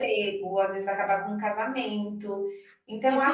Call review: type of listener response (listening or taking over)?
taking over